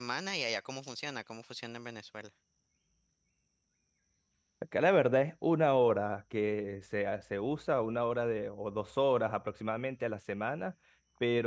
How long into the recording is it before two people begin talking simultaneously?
none

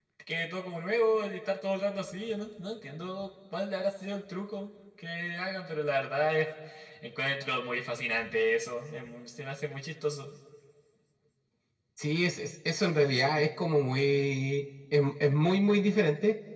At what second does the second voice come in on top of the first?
none

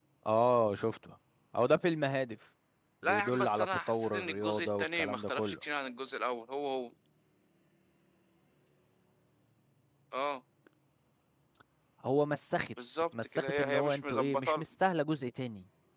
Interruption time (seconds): 3.0 s

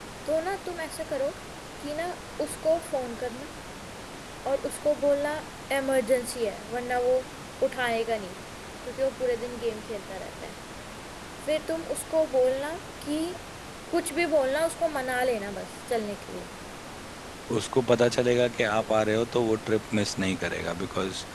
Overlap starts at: none

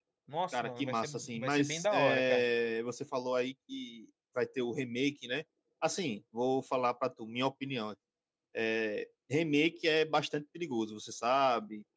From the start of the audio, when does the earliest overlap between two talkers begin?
0.5 s

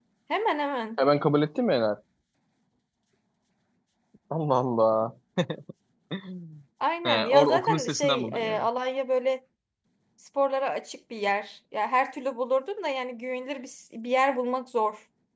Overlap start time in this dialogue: 7.0 s

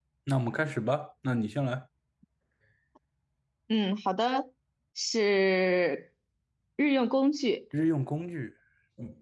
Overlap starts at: none

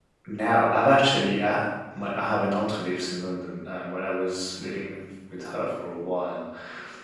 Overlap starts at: none

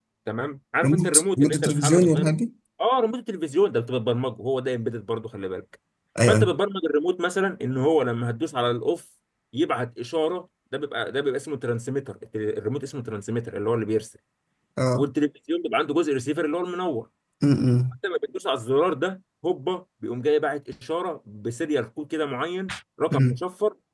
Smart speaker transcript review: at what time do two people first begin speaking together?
0.8 s

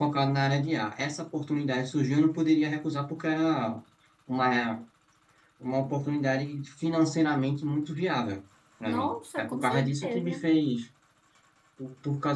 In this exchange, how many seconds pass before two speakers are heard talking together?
8.9 s

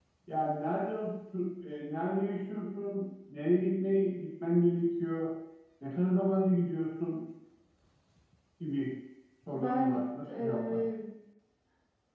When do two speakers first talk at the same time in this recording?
9.5 s

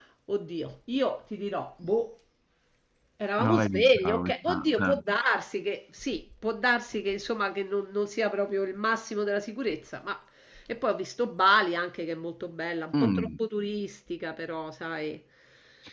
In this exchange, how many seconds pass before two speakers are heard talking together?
3.4 s

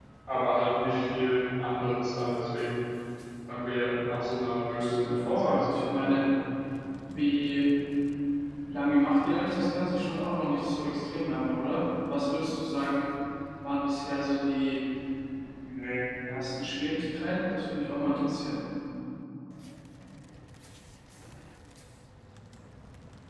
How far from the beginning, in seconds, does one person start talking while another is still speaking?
4.7 s

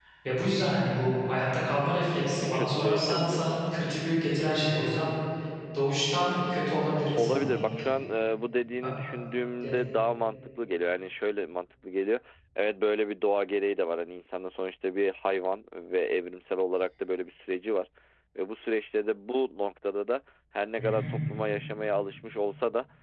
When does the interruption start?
2.3 s

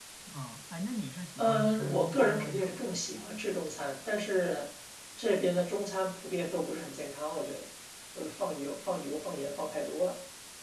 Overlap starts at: 1.4 s

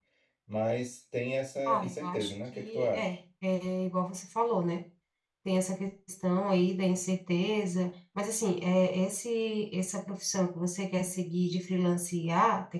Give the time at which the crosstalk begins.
1.7 s

